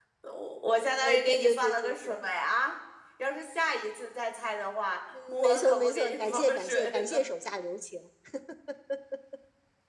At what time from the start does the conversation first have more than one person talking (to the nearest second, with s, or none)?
1 s